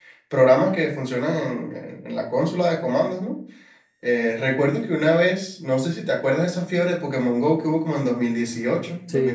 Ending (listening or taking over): listening